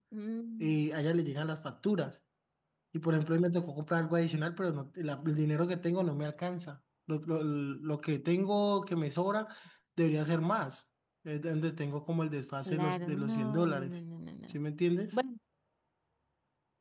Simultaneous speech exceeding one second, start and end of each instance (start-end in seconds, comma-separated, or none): 12.7-13.9